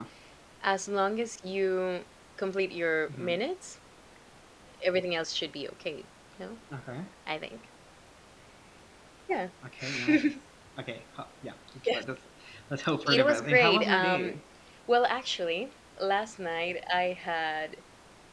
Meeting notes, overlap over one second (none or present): present